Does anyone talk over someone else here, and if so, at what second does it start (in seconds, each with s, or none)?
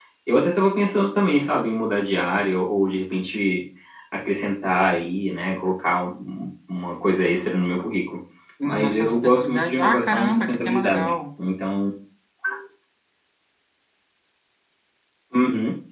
8.7 s